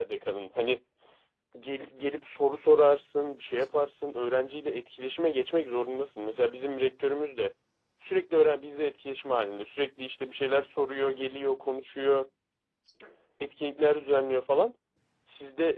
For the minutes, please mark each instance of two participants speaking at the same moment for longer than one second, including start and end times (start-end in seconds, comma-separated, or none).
none